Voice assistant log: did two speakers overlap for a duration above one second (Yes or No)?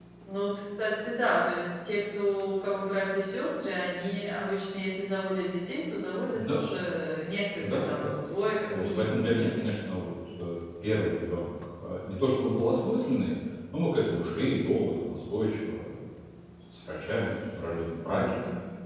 No